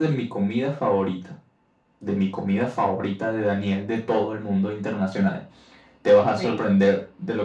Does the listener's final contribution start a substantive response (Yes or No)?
No